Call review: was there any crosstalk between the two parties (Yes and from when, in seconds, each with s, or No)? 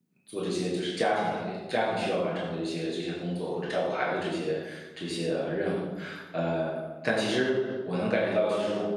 No